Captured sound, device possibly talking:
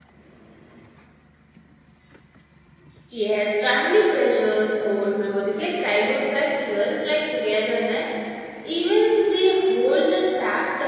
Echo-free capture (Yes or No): Yes